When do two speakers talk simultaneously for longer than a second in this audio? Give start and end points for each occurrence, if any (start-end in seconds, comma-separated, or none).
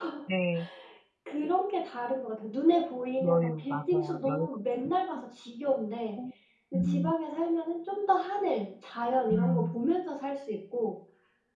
3.2-4.5